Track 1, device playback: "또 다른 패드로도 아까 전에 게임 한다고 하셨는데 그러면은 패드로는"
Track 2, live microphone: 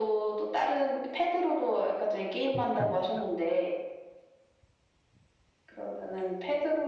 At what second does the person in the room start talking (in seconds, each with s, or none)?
2.5 s